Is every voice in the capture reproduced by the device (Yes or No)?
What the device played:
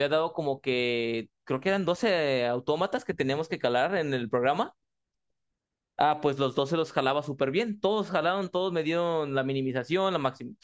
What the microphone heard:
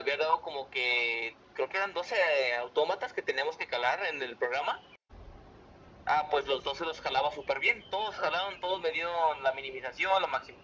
Yes